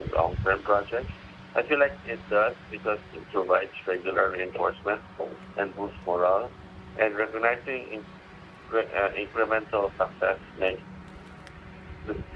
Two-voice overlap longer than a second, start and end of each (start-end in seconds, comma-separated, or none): none